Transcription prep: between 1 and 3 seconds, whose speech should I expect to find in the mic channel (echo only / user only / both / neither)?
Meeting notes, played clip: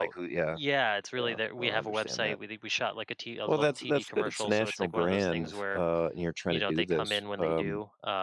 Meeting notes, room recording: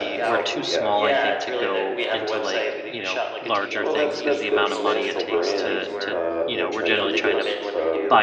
both